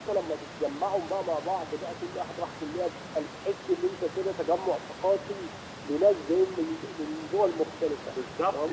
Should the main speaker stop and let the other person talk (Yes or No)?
Yes